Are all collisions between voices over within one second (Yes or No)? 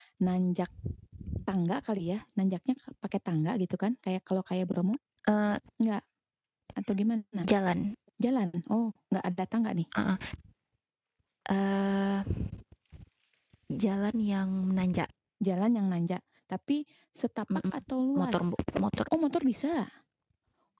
Yes